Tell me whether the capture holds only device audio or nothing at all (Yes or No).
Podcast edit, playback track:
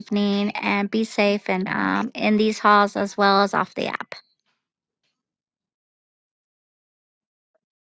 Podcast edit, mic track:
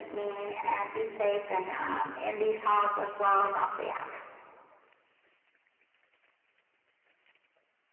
Yes